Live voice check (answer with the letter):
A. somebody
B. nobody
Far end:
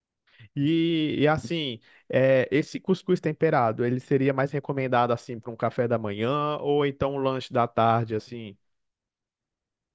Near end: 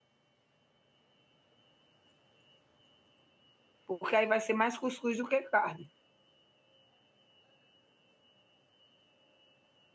A